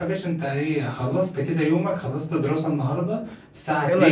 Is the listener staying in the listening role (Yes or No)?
Yes